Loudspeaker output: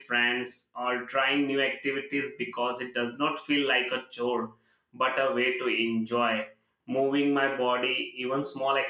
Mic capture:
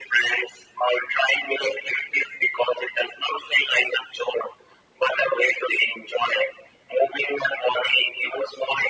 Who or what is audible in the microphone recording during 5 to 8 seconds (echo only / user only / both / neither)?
echo only